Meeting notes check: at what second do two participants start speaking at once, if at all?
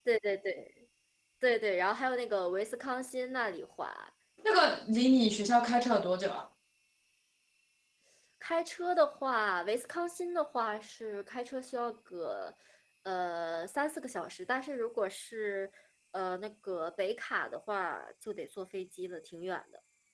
none

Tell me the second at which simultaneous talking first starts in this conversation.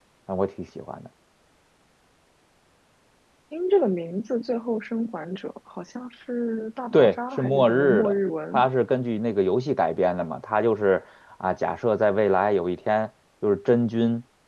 6.9 s

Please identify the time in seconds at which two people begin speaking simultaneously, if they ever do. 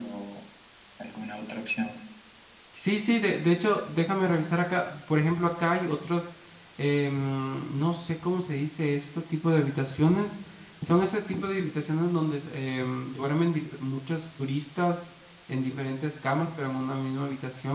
none

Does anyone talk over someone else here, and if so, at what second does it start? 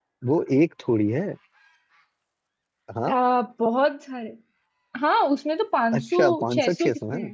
5.9 s

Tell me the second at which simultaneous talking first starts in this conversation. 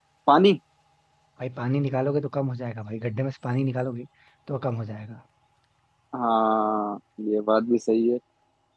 none

